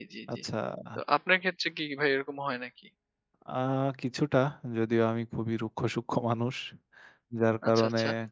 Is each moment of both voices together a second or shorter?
Yes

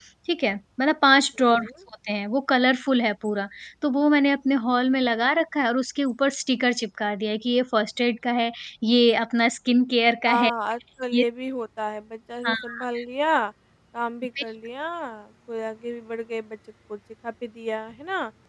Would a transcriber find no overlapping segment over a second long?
Yes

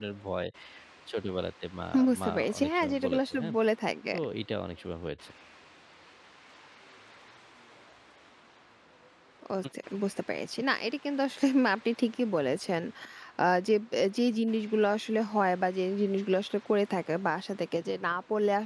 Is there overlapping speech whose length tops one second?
Yes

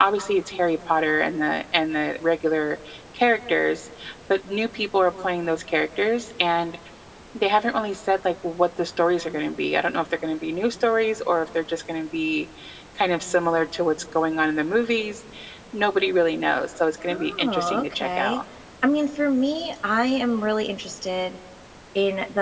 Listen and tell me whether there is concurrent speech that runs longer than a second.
Yes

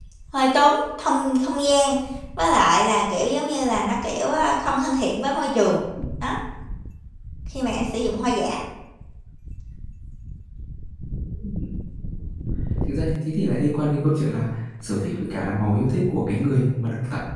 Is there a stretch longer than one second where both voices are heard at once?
No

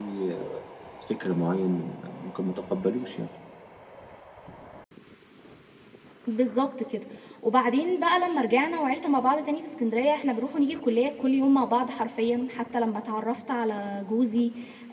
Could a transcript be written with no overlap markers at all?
Yes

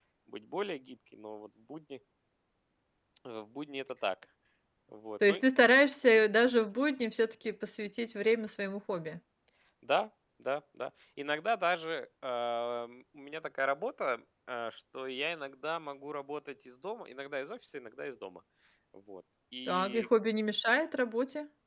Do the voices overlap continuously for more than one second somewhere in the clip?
No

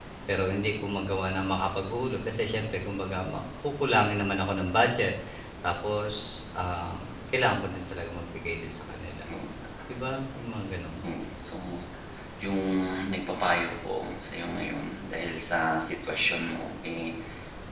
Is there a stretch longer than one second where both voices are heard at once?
No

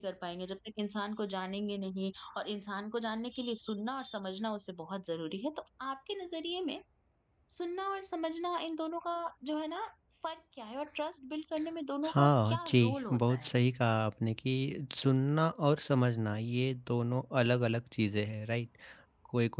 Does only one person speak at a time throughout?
No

